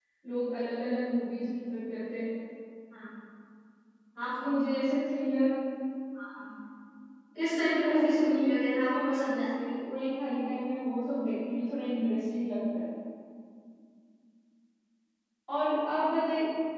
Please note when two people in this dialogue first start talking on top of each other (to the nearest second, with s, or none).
7 s